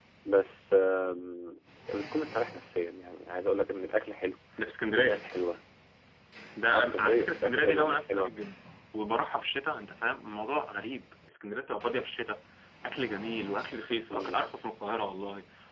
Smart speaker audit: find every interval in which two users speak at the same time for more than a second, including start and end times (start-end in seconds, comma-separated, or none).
6.7-8.3